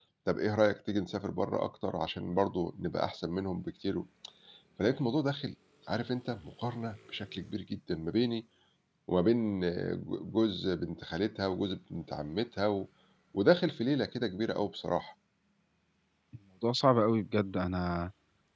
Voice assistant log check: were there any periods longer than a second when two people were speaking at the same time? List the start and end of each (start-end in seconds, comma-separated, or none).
none